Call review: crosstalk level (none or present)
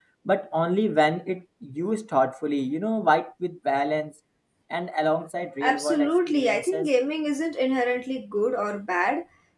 present